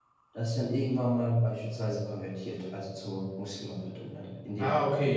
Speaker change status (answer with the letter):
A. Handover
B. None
A